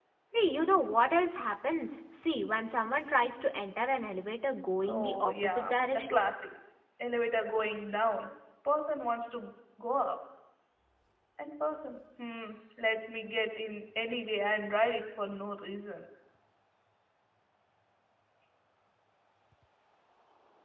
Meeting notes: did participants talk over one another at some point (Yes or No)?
Yes